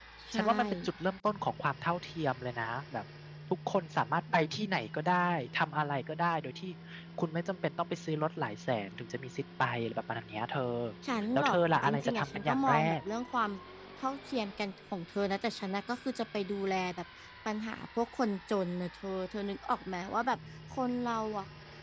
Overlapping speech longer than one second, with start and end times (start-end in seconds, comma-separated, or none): 11.3-12.9